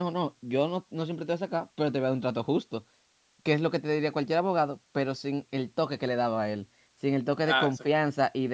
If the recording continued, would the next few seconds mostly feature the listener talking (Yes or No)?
No